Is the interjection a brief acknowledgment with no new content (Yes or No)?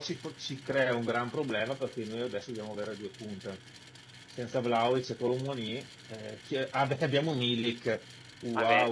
No